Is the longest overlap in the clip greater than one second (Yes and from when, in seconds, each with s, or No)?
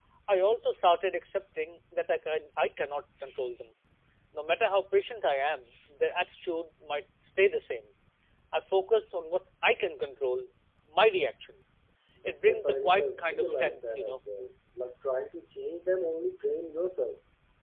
Yes, from 12.4 s